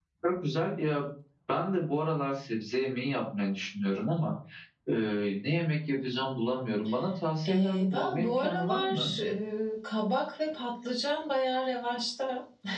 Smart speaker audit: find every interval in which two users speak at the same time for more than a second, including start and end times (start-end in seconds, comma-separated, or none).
7.5-9.1